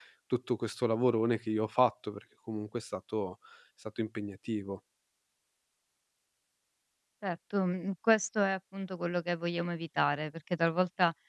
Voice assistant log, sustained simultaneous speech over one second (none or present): none